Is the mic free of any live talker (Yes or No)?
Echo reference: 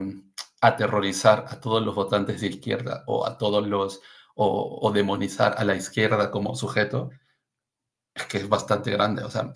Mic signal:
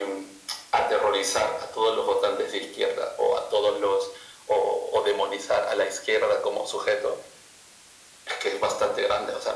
Yes